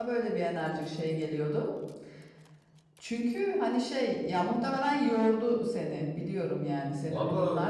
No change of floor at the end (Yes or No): No